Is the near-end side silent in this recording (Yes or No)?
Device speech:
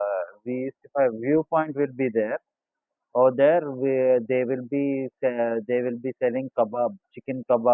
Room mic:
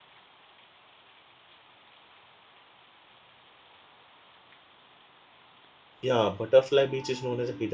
No